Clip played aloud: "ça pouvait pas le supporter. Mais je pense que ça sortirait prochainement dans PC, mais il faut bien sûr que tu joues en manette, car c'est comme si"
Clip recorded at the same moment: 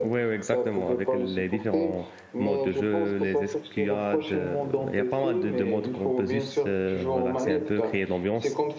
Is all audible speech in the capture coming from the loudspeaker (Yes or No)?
No